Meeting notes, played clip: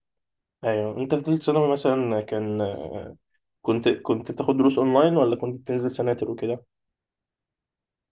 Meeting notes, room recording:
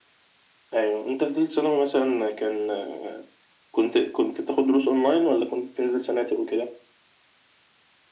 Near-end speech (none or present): none